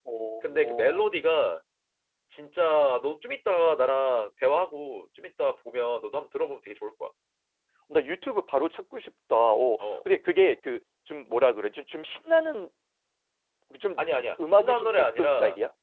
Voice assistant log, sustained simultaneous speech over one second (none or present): present